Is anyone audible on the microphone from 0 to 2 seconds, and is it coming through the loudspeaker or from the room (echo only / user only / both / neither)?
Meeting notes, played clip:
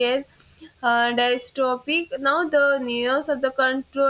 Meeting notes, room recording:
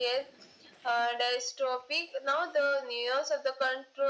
echo only